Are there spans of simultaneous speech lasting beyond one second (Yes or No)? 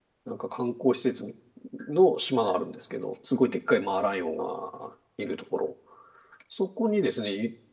No